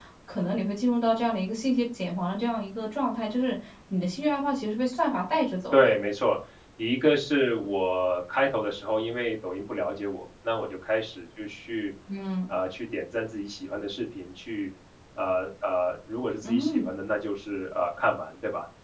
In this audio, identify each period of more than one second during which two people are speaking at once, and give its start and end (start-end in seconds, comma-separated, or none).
none